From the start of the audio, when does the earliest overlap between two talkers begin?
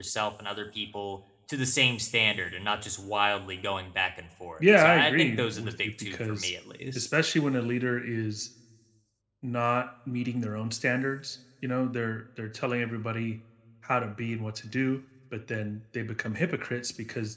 4.6 s

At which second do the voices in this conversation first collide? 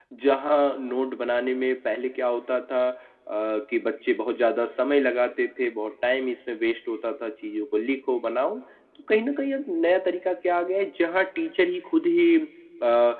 none

